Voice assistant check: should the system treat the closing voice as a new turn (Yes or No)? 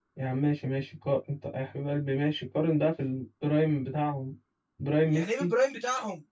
Yes